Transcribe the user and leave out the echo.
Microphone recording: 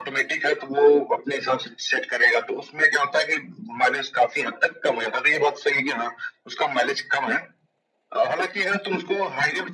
none

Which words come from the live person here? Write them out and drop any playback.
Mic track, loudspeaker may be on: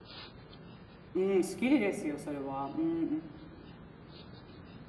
うん、スッキリですよ、それは。うん

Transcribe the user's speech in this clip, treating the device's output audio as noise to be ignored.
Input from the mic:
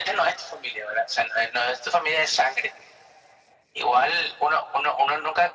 none

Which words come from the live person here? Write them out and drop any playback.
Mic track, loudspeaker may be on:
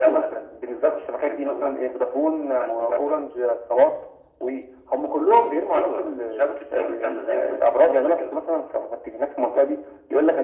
none

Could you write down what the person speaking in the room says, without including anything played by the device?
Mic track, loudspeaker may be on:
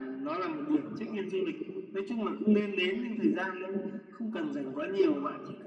none

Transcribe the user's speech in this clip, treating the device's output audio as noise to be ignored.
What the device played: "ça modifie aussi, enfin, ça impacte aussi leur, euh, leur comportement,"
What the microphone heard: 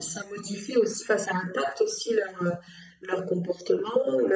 none

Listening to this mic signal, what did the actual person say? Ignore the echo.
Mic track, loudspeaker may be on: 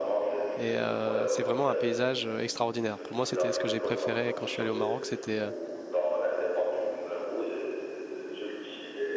Et euh, c'est vraiment un paysage euh, extraordinaire. Pour moi, c'était ce que j'ai préféré quand je suis allé au Maroc, c'était euh,

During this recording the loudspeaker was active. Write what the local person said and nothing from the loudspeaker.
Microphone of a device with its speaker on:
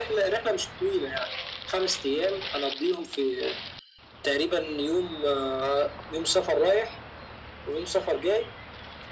none

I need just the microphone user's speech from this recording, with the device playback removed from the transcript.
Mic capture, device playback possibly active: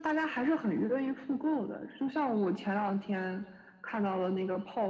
none

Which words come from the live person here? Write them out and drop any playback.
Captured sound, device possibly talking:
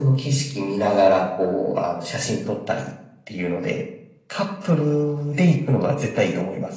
none

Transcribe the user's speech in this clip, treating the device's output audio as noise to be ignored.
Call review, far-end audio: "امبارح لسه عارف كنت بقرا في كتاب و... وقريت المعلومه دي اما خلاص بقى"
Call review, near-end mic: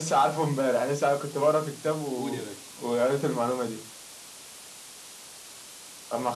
قول يا باشا

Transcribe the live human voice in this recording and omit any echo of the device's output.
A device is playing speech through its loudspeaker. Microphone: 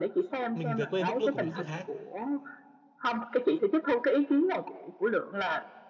mình về quê mức lương của mình sẽ khác

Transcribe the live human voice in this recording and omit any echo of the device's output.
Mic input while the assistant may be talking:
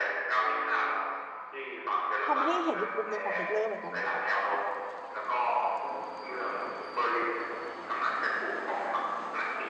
ทำให้เห็นอีกมุมหนึ่งของฮิตเลอร์เหมือนกันนะคะ

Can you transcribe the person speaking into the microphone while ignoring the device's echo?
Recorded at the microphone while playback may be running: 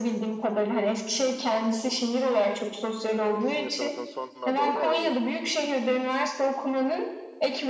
e, üçüncü sınıfın sonuna doğru eve geçmiştim.

